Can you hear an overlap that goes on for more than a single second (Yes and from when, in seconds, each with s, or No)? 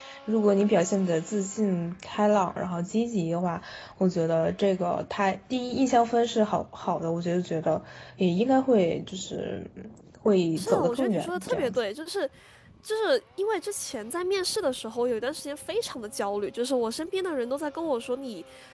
Yes, from 10.6 s